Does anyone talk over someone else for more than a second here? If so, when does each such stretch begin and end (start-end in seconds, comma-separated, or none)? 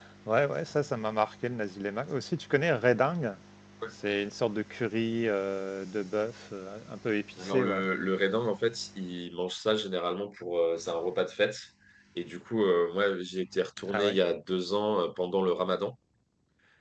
none